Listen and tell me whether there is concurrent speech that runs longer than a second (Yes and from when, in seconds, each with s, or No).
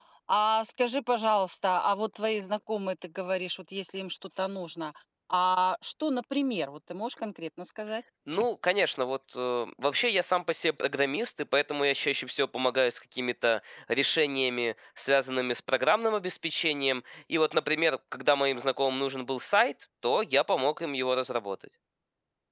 No